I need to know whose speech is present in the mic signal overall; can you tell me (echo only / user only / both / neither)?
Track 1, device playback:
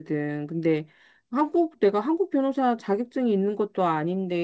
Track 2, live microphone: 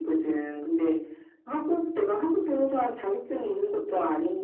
echo only